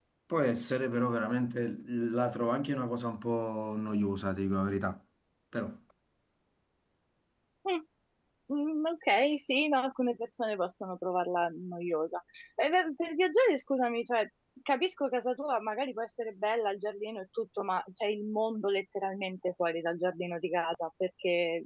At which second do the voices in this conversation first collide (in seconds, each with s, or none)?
none